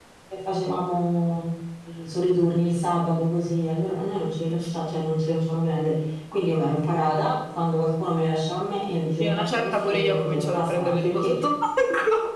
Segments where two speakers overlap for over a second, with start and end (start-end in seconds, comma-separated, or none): 9.2-11.3